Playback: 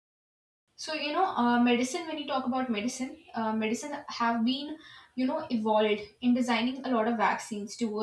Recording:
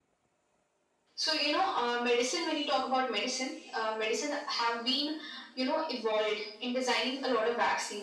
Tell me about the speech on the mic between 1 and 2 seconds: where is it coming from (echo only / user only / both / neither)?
echo only